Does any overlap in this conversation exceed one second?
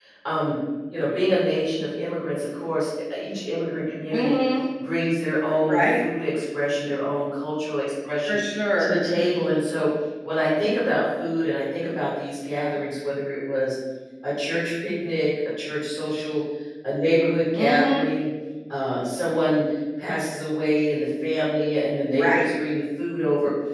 No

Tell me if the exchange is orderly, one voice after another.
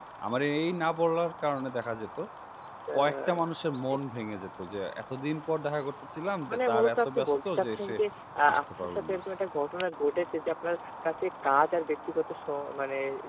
No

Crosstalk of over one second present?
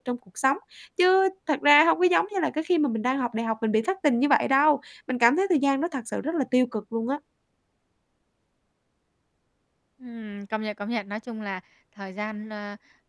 No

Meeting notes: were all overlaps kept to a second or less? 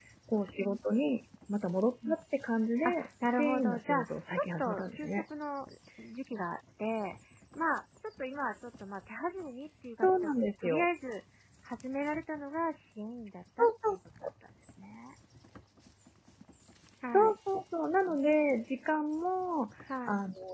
No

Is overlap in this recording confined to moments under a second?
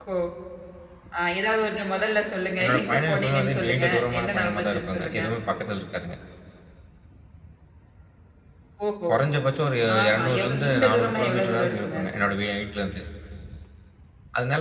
No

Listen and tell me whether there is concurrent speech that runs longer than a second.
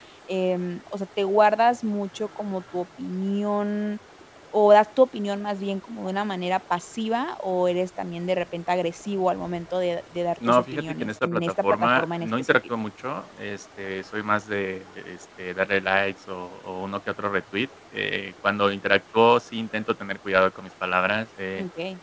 Yes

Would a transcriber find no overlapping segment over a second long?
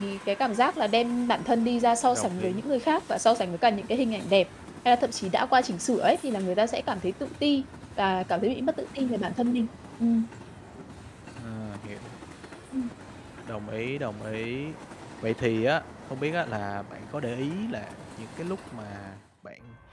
Yes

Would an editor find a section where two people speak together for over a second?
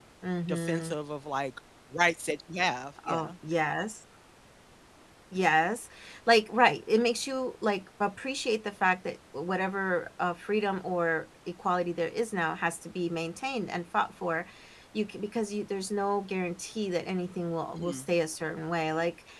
No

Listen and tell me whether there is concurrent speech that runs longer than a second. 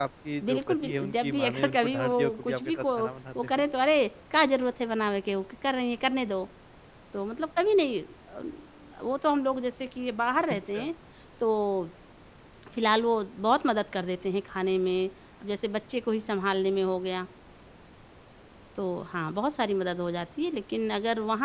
Yes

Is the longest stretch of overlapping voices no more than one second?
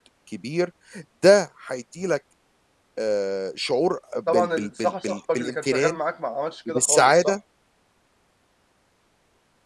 No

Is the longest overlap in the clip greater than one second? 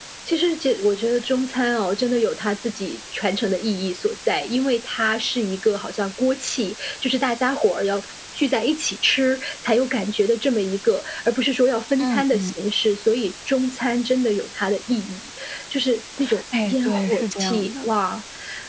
Yes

